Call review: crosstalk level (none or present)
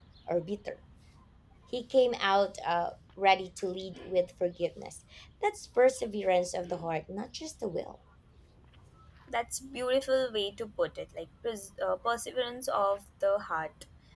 none